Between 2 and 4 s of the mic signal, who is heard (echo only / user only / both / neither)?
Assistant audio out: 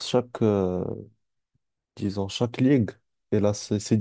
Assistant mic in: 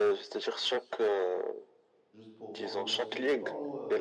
both